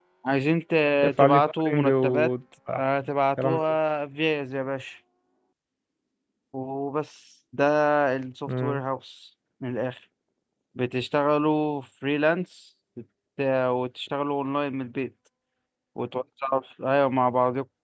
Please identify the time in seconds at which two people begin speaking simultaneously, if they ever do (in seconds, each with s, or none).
1.0 s